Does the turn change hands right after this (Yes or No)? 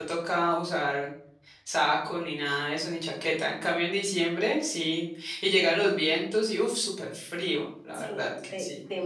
Yes